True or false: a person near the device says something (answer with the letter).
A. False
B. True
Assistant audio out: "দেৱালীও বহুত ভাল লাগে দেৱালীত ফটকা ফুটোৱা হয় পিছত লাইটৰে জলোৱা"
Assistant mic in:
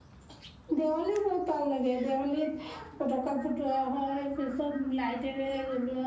A